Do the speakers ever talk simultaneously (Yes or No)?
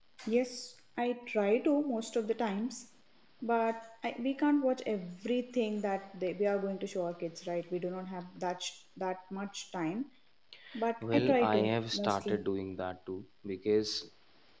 Yes